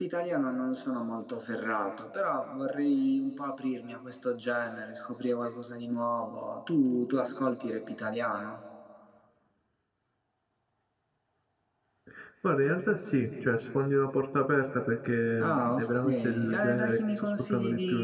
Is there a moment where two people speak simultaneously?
Yes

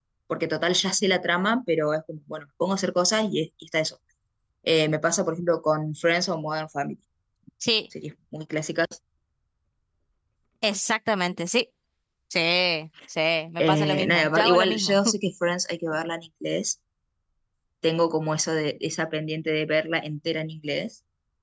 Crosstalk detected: Yes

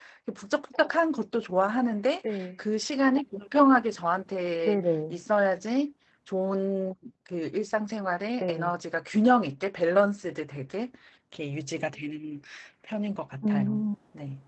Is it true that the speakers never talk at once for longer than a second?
Yes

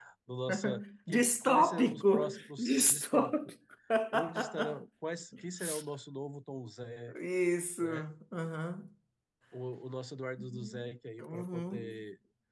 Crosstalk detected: Yes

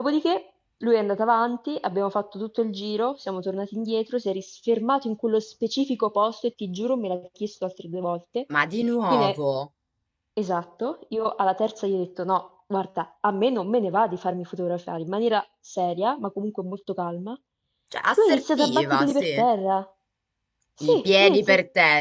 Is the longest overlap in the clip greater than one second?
Yes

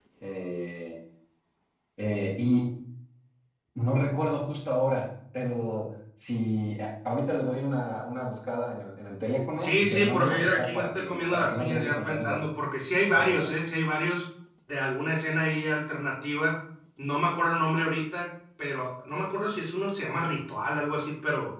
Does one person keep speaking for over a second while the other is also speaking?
Yes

